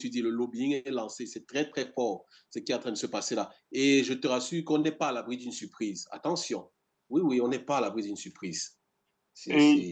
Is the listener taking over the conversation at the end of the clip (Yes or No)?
Yes